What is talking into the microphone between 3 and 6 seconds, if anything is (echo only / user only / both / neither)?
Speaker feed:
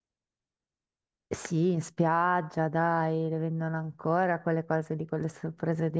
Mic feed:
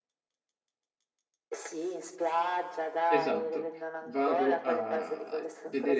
both